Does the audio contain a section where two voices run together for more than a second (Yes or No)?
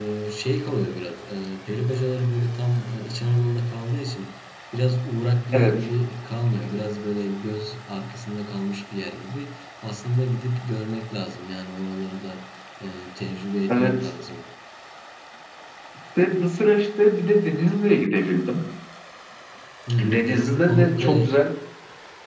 Yes